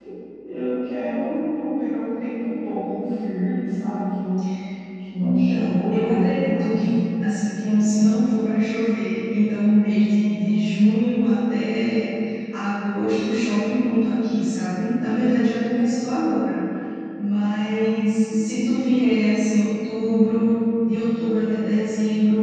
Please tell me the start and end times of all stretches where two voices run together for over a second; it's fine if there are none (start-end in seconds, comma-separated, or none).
5.2-6.8